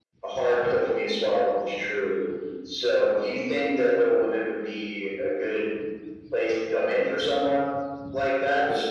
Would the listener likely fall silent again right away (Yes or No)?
Yes